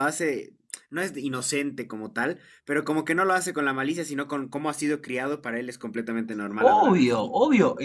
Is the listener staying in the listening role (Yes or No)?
No